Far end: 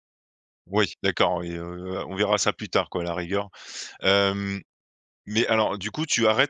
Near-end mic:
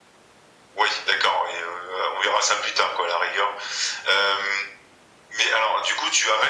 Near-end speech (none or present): none